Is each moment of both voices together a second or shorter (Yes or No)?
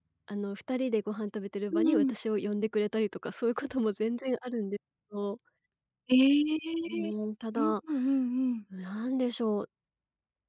Yes